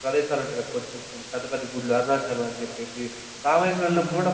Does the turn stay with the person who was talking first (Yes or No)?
Yes